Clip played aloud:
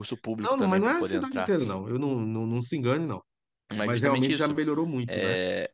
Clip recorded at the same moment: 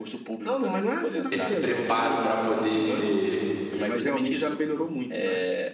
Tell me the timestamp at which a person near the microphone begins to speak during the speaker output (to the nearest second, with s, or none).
1 s